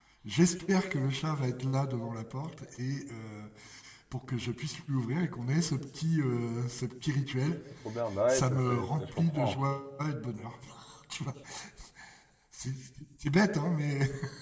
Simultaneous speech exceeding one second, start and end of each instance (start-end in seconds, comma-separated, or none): 8.3-9.6